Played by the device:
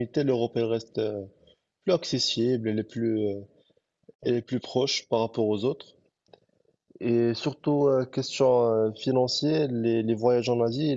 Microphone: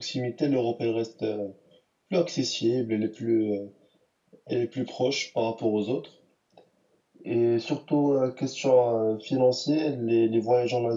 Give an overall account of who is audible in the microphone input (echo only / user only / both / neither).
echo only